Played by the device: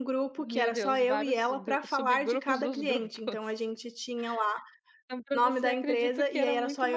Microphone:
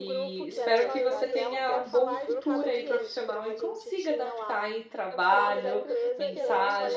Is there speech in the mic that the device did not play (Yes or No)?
Yes